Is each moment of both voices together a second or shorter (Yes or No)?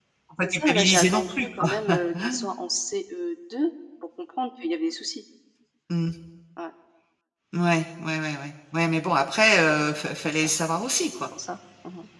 No